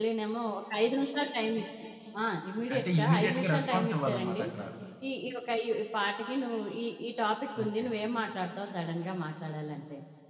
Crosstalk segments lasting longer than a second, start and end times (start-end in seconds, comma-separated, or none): 2.7-4.4